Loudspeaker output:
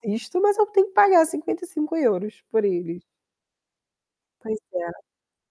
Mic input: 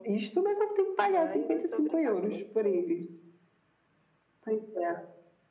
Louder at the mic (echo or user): echo